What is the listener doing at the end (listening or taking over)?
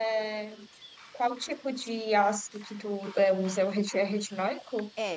taking over